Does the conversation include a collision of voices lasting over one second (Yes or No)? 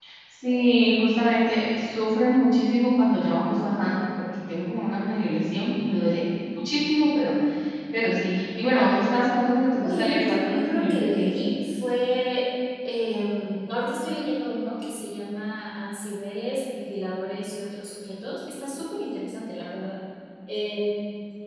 Yes